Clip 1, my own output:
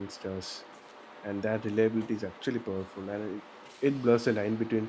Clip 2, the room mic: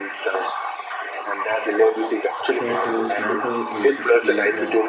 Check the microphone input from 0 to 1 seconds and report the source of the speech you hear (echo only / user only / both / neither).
echo only